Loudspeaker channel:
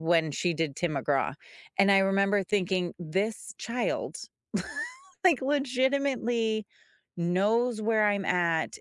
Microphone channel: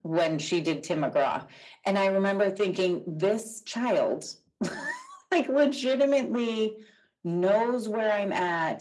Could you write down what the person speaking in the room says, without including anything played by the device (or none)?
none